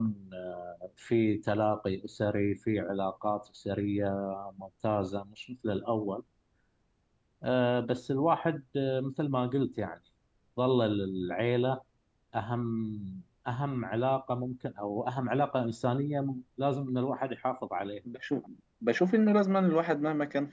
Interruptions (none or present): none